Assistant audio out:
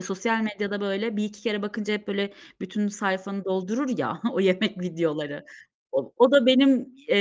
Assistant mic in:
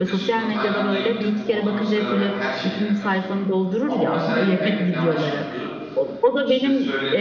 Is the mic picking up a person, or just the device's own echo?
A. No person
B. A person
B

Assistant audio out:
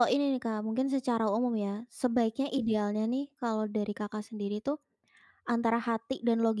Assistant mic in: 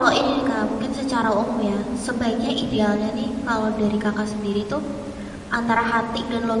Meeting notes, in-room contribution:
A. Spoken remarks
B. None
B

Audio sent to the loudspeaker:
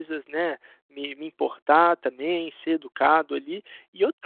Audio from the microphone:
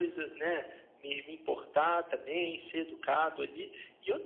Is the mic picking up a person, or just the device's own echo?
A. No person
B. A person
A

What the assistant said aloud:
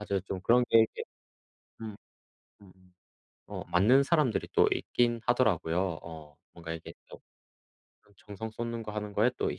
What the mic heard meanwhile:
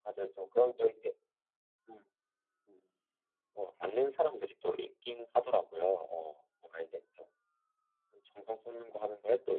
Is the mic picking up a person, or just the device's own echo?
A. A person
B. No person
B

